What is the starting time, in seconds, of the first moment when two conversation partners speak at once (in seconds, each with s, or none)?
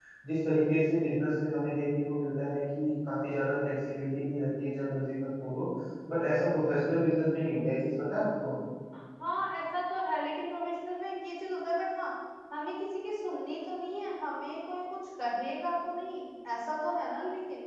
none